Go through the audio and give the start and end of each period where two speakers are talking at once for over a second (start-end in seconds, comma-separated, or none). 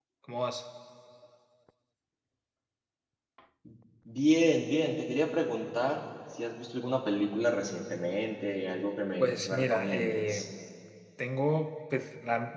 9.2-10.4